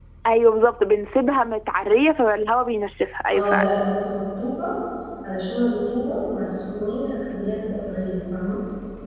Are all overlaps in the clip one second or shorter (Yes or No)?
Yes